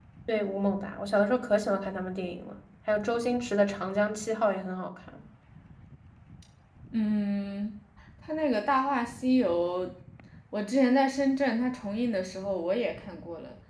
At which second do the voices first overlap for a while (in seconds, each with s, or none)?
none